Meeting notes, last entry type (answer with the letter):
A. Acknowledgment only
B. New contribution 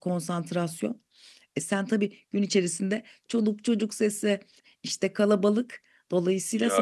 B